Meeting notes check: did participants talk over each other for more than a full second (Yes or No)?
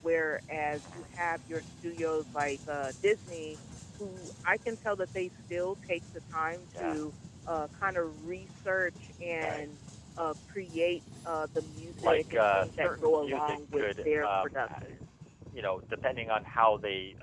Yes